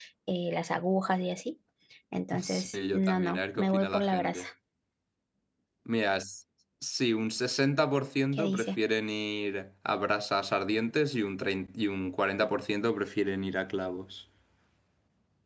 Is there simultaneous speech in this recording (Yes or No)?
Yes